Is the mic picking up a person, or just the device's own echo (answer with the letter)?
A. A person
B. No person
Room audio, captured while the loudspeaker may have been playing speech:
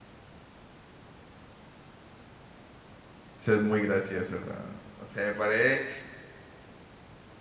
A